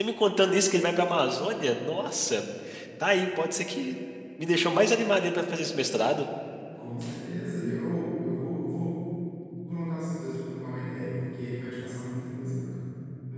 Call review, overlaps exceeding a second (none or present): none